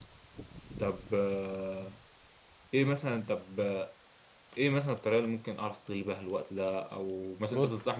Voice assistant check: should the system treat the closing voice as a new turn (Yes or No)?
No